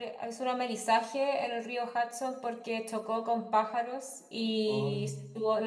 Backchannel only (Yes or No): Yes